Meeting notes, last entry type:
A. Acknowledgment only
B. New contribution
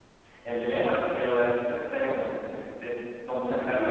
A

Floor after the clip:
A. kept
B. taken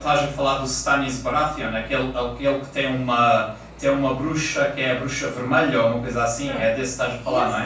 B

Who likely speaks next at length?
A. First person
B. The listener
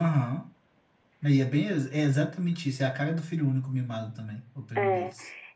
B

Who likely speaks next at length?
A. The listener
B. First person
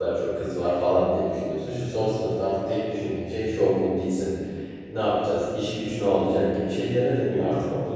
A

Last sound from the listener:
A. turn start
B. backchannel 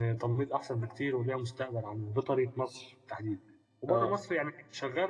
B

